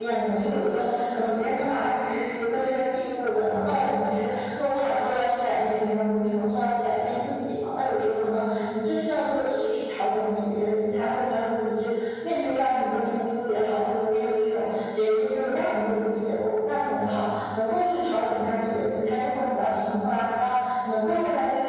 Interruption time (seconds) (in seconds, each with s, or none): none